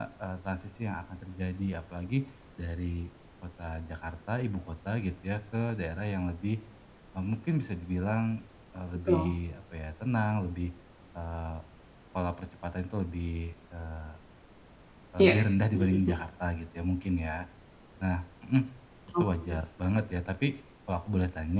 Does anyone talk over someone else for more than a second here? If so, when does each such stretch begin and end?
none

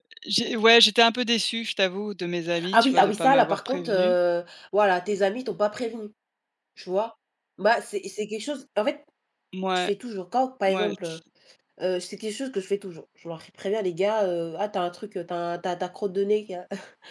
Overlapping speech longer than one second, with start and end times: 2.7-4.2

